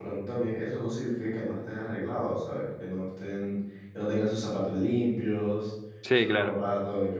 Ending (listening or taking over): listening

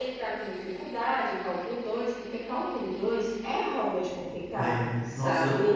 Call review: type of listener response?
taking over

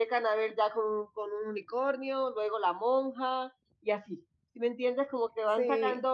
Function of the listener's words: listening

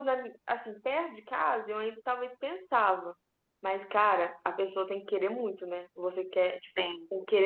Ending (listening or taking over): listening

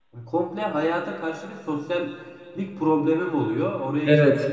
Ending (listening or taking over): listening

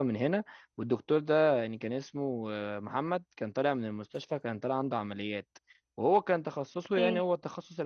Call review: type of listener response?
listening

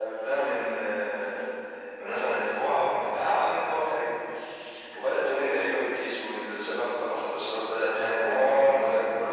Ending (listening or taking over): listening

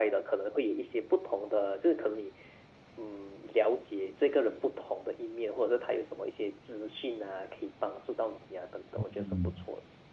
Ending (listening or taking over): taking over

